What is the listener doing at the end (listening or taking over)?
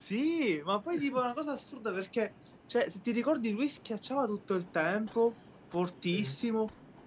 listening